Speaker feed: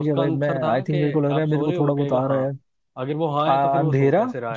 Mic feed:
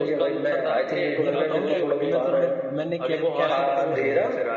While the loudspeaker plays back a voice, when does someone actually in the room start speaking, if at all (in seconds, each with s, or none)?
1.2 s